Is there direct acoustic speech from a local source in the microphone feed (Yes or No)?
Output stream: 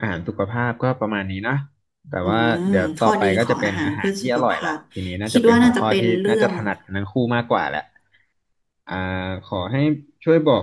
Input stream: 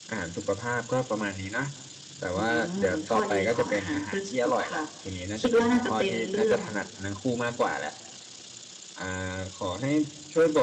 No